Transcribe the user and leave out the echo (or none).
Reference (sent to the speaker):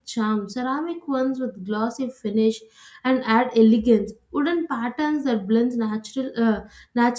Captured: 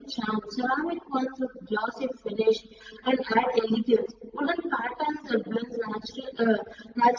none